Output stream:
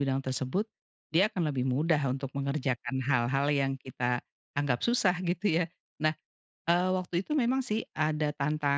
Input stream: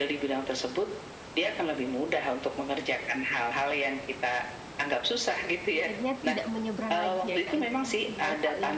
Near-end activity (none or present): present